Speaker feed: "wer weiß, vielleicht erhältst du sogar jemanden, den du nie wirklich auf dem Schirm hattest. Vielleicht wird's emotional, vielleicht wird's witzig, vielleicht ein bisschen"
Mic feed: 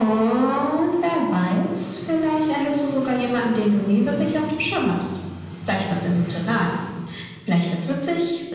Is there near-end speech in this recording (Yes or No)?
No